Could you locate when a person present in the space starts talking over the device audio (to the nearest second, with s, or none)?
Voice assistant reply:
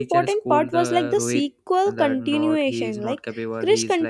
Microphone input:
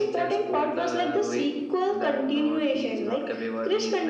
none